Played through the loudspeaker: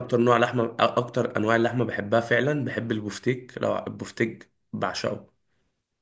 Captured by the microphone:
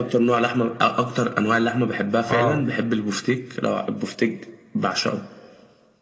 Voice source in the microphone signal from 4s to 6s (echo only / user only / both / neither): echo only